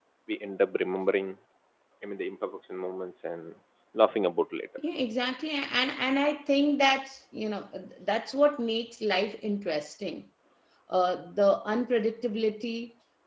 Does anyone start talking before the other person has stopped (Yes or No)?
No